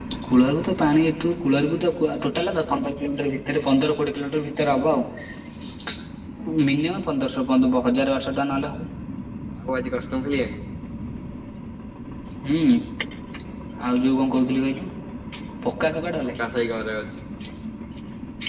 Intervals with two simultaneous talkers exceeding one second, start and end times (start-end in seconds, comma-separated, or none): none